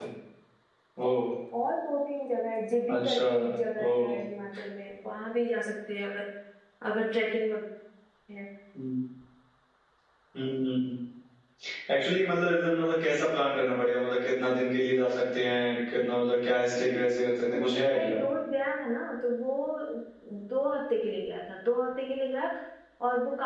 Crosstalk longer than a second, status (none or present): present